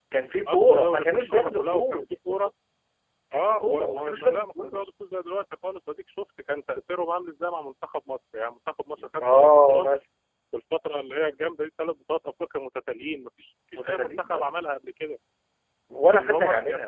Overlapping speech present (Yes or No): Yes